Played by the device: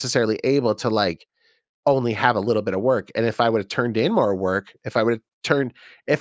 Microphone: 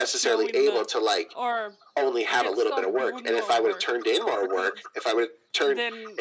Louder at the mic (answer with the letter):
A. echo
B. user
A